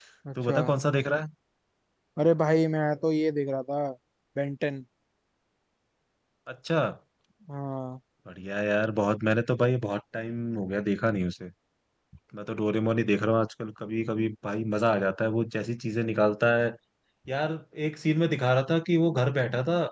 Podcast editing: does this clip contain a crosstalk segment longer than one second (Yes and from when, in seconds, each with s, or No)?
No